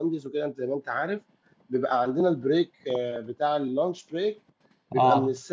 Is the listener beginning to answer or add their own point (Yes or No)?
No